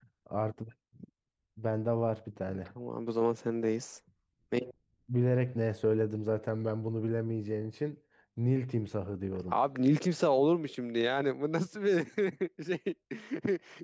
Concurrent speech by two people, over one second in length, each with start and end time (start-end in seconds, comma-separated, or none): none